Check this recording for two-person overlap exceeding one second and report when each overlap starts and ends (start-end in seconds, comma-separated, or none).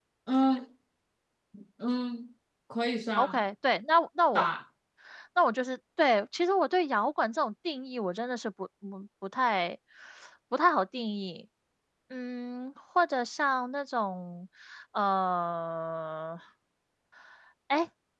none